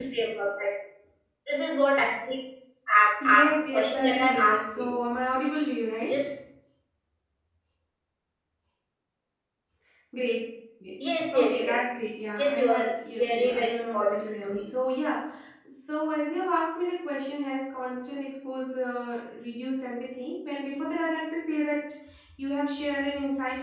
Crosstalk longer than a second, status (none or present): present